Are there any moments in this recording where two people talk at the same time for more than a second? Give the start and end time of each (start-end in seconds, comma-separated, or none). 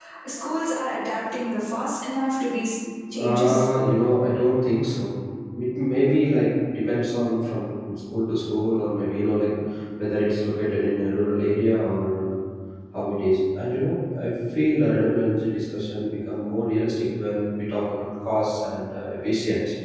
none